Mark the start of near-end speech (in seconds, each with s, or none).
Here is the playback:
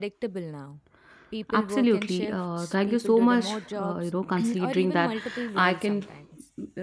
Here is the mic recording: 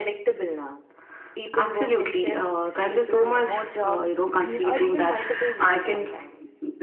none